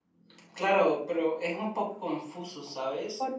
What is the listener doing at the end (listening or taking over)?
listening